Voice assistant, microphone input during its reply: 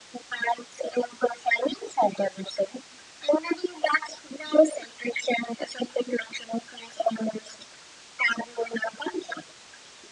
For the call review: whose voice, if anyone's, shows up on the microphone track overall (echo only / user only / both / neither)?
echo only